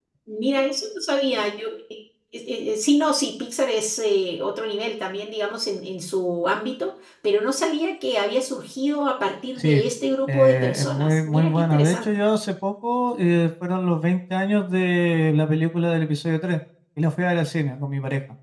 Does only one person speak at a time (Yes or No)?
No